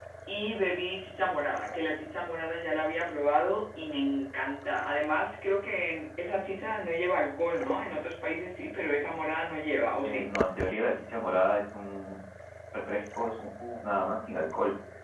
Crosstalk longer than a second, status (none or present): none